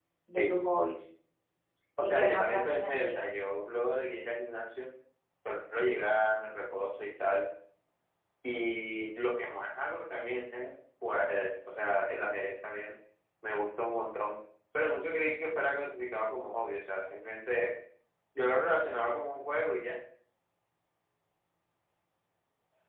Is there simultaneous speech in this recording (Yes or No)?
Yes